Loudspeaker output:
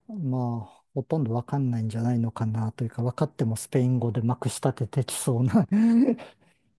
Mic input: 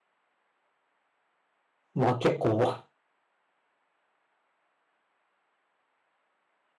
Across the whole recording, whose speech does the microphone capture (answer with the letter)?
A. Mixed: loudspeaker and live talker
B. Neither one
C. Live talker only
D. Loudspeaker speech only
C